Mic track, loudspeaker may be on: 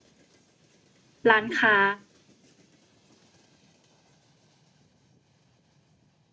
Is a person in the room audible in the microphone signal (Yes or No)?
Yes